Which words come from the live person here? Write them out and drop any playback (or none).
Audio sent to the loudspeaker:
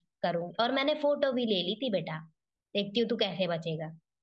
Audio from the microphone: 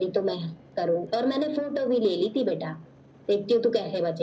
none